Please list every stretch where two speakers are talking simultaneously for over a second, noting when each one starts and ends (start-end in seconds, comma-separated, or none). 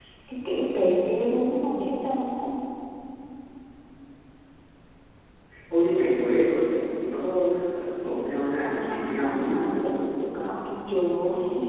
8.6-9.9